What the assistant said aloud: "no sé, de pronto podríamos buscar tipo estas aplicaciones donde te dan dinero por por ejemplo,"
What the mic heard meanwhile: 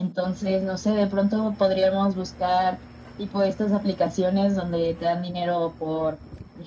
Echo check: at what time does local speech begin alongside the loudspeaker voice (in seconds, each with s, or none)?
none